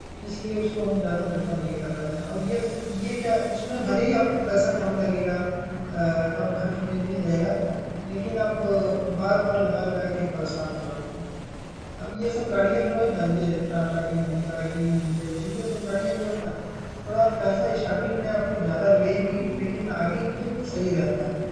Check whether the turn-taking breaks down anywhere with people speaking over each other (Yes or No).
No